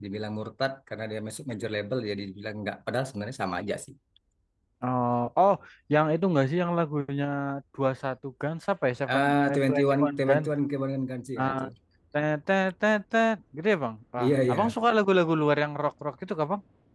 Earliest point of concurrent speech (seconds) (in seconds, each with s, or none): 9.2 s